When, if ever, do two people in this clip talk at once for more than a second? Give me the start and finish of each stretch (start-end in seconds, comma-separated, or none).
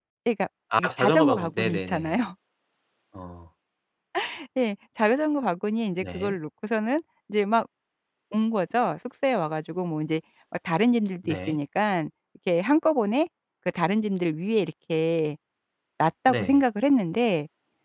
0.8-2.2